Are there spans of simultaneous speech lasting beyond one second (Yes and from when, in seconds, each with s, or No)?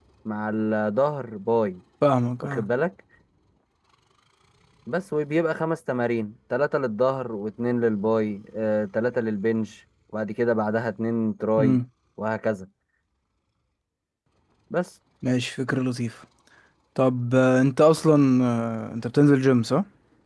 No